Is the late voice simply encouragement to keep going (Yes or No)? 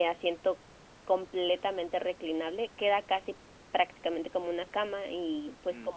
Yes